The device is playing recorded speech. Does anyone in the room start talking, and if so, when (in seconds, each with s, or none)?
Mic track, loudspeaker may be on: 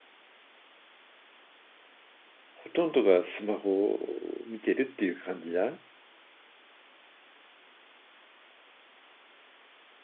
2.5 s